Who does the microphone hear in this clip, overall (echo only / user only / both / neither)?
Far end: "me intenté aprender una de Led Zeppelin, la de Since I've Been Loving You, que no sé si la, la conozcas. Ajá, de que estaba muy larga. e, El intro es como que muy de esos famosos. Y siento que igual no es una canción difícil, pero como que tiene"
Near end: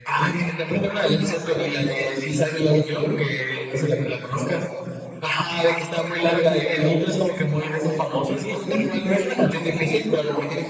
echo only